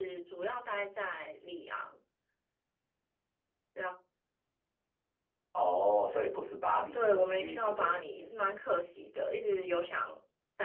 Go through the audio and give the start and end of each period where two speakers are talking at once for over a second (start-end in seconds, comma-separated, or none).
6.7-8.0